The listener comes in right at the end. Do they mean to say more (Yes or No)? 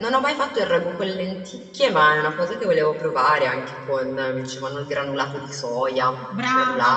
Yes